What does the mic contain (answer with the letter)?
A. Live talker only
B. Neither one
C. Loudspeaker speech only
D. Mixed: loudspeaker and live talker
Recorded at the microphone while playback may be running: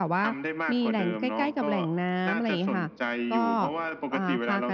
D